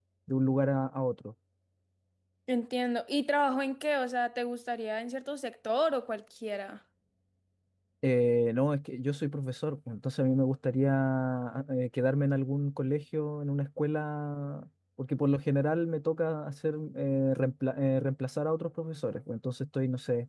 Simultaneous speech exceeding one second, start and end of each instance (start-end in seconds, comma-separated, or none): none